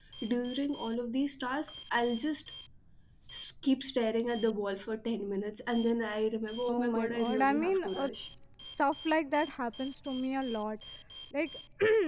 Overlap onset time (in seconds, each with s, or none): 6.7 s